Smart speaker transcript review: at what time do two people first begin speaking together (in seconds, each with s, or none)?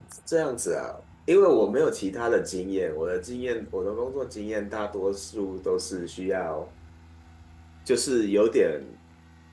none